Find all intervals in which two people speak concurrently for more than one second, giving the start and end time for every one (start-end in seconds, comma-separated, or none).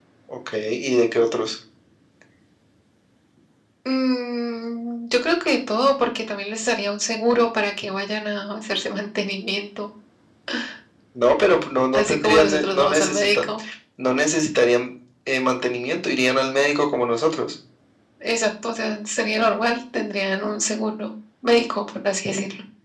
11.9-13.4